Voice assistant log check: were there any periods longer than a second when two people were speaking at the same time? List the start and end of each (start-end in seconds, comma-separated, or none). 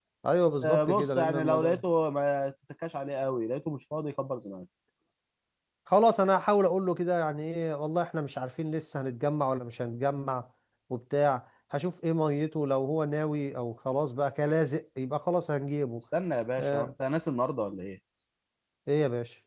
0.6-1.8